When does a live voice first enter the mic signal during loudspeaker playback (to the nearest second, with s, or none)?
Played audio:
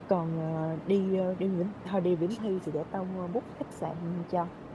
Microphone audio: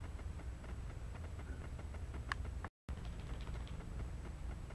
none